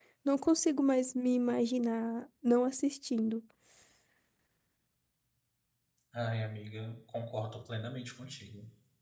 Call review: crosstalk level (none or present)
none